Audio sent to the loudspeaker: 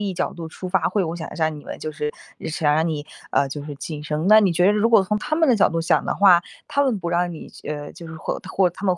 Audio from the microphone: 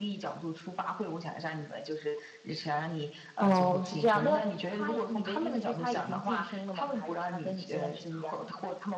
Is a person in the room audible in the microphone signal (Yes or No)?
Yes